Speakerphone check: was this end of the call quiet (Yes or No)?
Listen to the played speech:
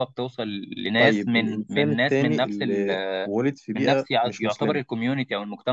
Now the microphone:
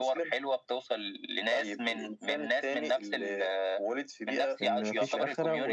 No